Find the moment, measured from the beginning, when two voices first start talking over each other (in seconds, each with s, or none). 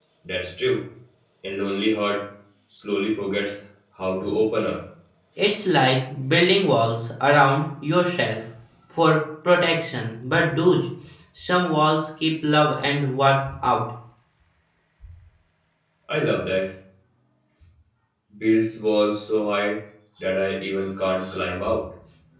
none